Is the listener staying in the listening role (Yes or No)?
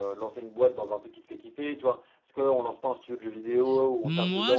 No